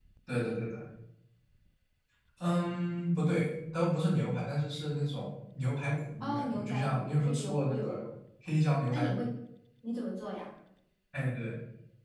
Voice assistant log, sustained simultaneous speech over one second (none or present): present